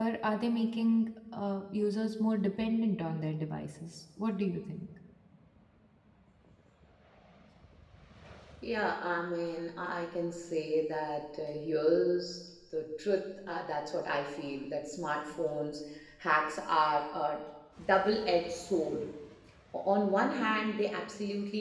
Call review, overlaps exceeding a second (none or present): none